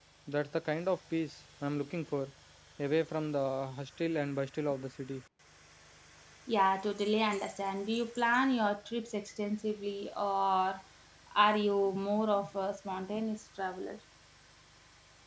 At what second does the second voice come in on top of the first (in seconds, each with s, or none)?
none